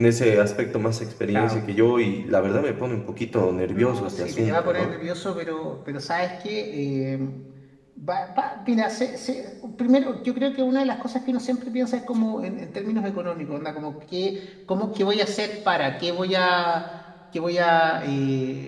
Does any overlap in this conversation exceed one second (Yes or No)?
Yes